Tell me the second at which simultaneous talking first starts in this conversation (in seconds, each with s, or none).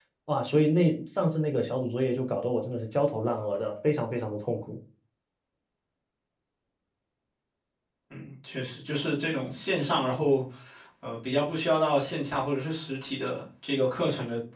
none